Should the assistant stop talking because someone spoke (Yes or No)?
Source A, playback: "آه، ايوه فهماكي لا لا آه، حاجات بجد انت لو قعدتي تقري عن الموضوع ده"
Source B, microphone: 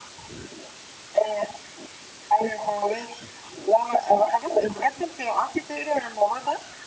No